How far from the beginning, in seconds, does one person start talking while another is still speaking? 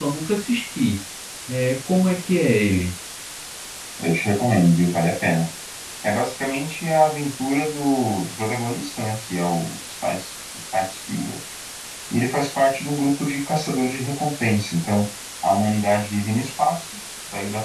none

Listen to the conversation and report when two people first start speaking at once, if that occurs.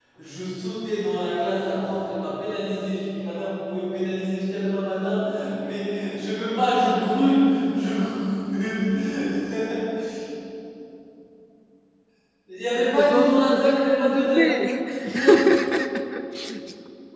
13.0 s

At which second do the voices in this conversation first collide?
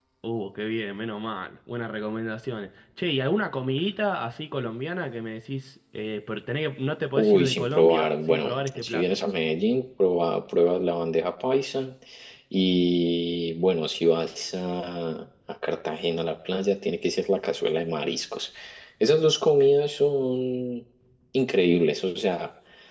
7.2 s

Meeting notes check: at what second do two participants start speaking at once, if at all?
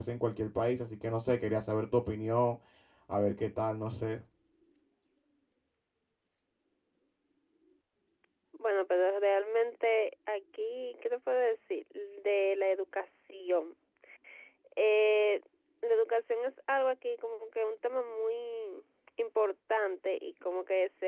none

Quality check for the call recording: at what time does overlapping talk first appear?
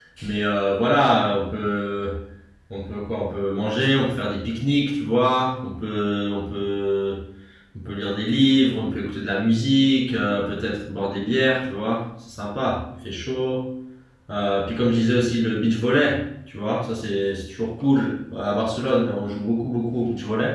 none

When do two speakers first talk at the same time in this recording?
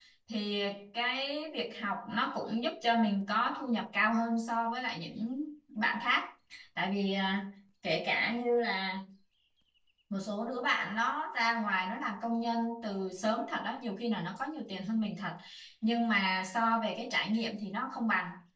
none

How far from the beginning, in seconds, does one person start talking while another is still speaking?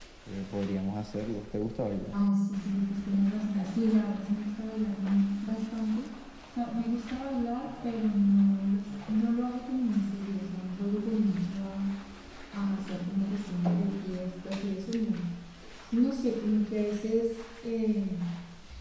none

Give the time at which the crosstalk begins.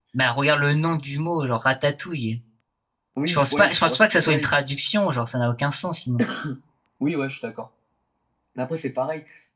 3.3 s

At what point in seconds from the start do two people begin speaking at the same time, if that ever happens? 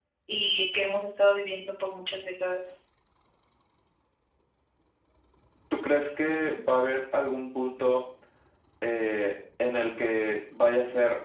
none

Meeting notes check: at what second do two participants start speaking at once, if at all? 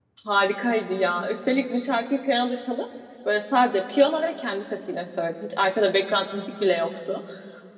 none

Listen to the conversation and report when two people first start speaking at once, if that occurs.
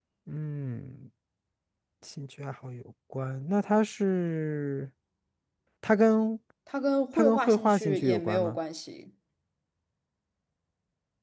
7.1 s

